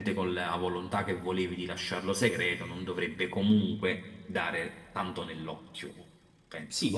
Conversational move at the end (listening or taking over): taking over